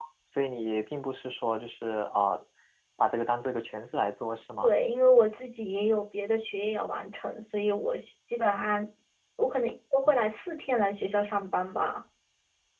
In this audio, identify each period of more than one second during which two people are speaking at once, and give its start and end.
none

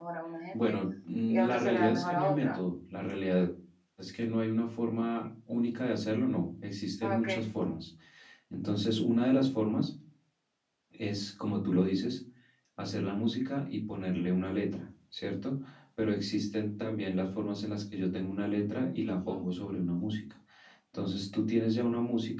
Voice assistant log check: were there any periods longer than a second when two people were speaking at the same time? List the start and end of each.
1.3-2.6

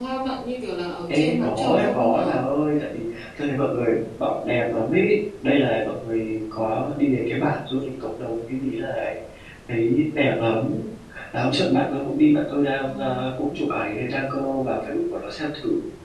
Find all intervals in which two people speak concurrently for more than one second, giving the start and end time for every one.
1.1-2.4

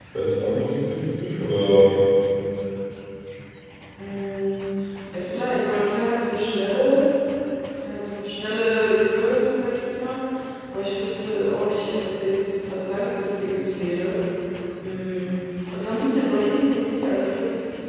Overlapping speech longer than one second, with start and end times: none

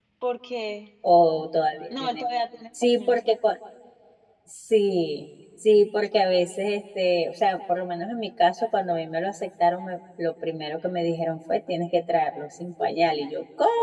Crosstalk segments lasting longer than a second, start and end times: none

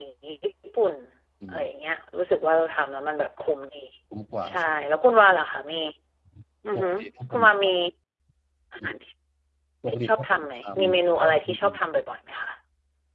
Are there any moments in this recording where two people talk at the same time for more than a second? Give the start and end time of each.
9.9-11.5

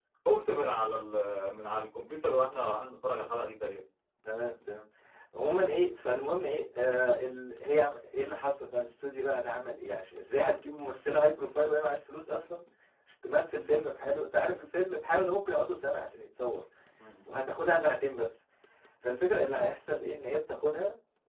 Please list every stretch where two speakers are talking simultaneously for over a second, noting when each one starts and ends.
none

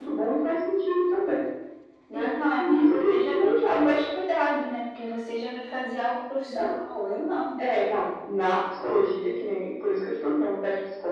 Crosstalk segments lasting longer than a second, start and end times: 2.1-4.0

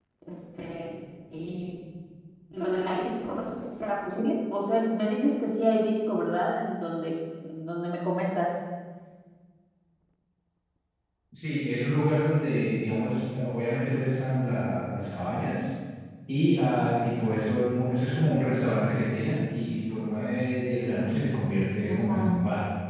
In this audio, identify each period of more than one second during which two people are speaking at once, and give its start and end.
none

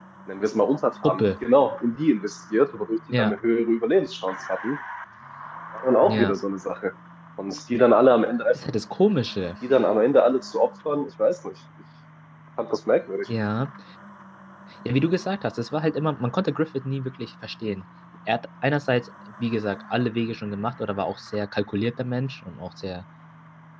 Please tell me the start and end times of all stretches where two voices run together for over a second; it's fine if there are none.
none

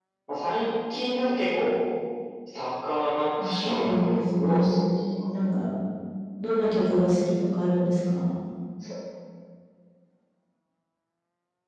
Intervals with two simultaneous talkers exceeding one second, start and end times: 3.4-4.8

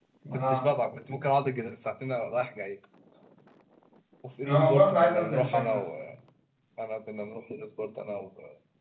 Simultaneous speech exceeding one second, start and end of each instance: 4.5-5.8

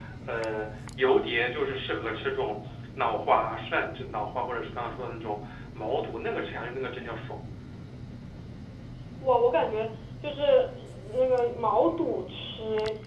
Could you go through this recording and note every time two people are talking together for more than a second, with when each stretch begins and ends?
none

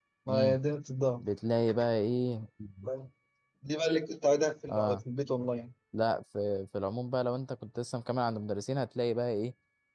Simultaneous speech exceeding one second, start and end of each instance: none

